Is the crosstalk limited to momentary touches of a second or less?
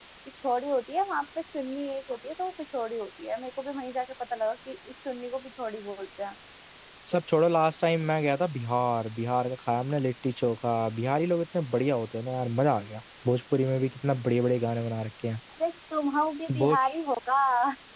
Yes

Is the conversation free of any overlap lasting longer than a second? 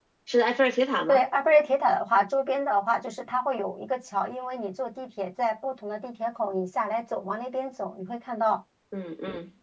Yes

